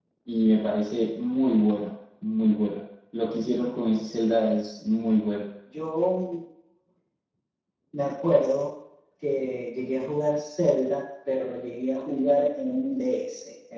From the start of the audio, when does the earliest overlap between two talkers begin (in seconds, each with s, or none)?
none